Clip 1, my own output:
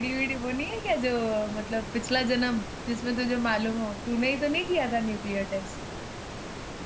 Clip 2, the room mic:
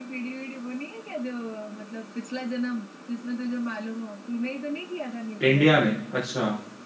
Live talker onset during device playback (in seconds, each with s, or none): 5.4 s